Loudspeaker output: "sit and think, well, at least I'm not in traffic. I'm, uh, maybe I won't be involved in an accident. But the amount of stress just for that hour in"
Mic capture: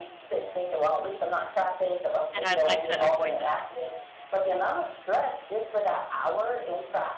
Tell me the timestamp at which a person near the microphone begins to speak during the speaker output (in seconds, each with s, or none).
2.3 s